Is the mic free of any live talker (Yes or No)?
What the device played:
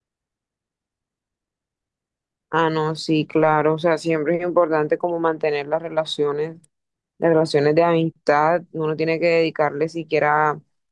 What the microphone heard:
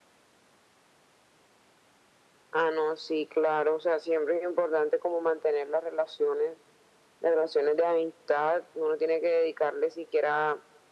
Yes